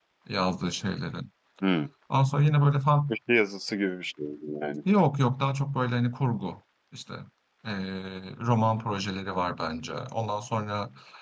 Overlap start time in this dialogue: none

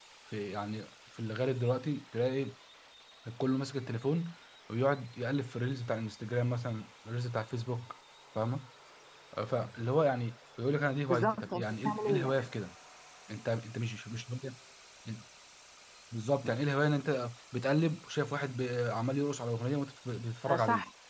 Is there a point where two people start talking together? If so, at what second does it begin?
11.1 s

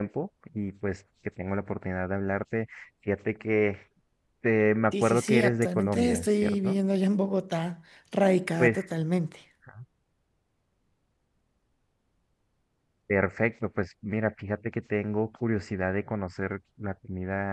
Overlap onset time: 4.9 s

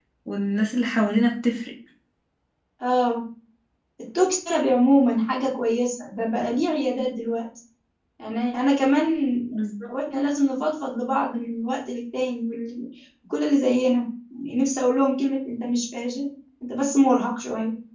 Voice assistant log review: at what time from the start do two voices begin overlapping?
none

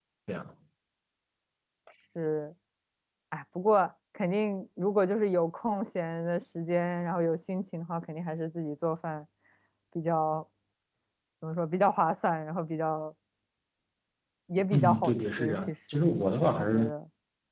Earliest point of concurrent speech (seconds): 14.7 s

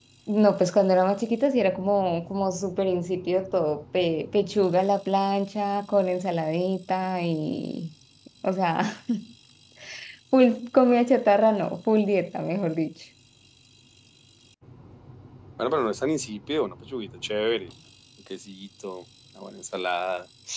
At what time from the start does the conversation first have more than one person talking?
none

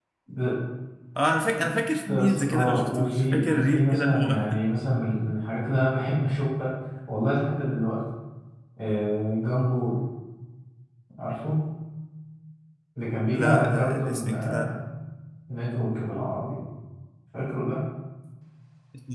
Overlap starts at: 2.1 s

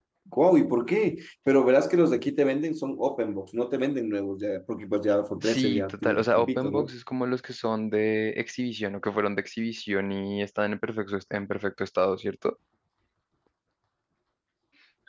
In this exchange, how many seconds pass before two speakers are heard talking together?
5.4 s

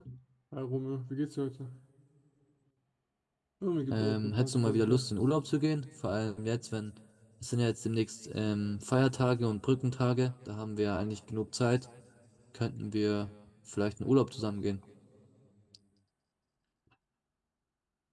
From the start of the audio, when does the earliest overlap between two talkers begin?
3.9 s

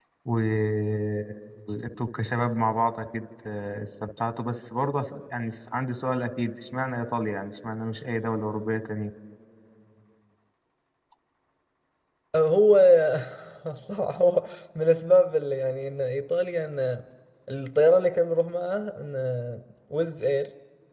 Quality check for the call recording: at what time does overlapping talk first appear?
none

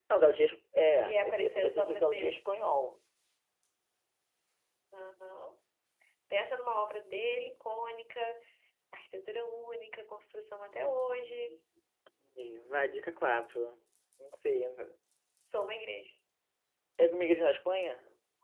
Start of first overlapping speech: 1.1 s

